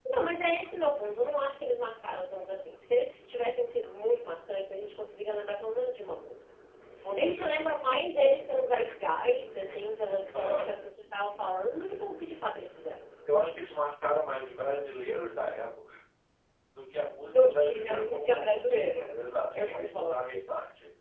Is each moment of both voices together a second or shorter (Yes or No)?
No